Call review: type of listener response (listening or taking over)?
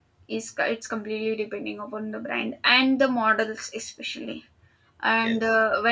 listening